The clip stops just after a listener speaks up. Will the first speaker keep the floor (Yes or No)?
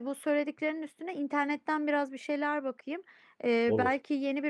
Yes